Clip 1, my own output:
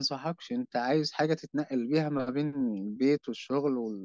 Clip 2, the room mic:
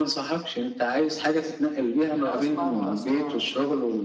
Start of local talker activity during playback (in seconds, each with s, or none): 2.2 s